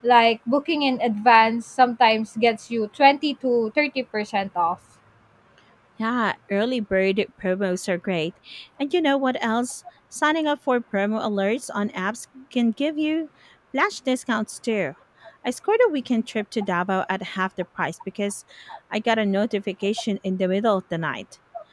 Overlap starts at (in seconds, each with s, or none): none